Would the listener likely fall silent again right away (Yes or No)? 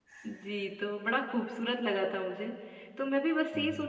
Yes